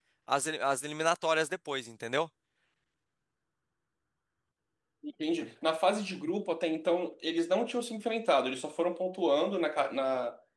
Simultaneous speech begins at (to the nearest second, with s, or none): none